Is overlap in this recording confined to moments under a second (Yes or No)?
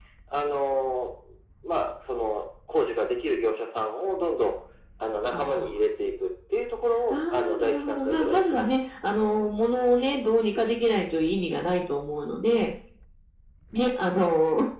No